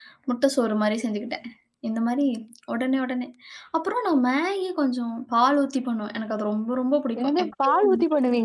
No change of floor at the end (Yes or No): No